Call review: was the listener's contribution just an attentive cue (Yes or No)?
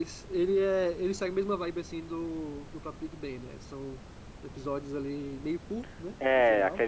No